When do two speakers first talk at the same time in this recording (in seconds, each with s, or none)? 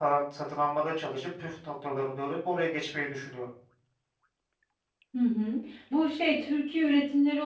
none